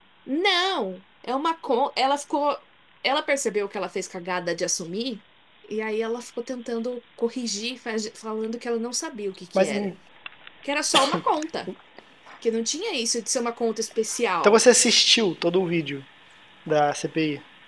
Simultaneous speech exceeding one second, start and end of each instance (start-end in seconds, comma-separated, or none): none